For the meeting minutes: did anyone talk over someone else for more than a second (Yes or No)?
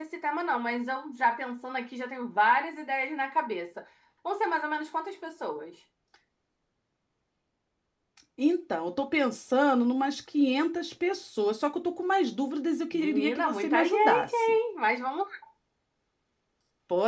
Yes